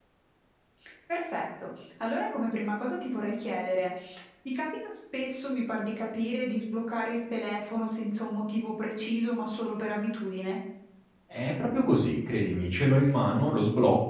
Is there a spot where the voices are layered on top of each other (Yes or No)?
No